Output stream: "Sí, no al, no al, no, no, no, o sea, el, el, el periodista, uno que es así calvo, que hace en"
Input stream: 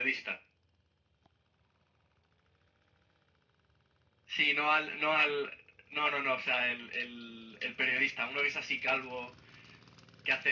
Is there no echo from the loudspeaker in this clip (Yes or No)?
No